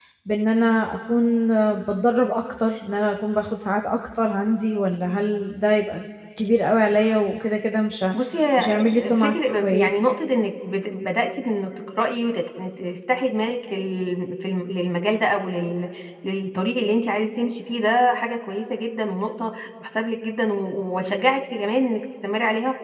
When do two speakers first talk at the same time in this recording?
8.6 s

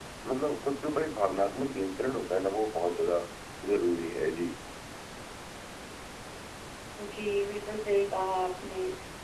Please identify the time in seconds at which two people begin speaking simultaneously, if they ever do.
none

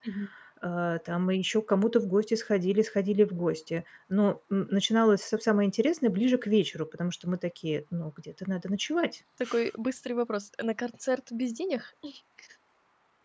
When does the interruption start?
none

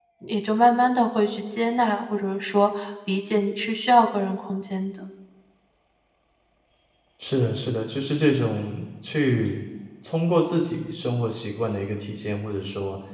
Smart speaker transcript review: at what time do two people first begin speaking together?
none

